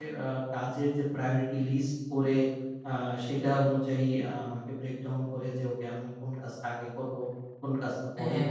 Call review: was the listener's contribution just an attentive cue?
Yes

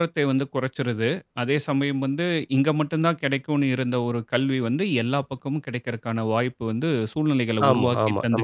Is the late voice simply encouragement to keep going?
No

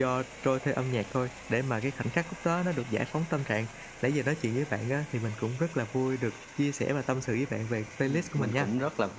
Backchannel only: No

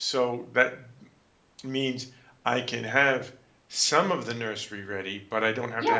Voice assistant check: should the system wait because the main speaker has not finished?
No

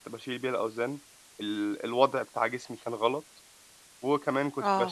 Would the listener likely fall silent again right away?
Yes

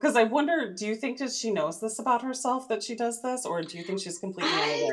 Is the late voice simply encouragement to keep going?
No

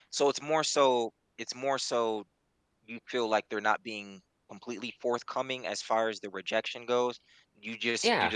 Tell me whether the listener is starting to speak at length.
No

